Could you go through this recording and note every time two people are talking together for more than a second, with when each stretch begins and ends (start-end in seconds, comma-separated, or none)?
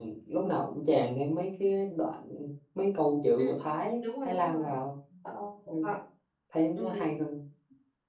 3.4-4.8